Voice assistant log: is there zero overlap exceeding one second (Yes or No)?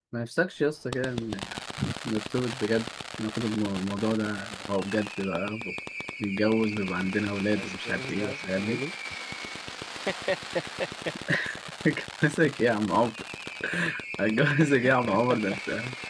No